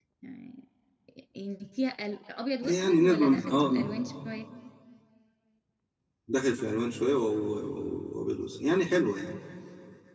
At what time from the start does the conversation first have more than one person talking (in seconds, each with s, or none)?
2.6 s